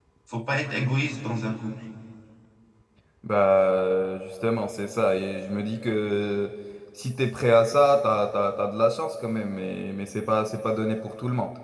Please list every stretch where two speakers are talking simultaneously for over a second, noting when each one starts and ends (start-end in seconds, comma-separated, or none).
none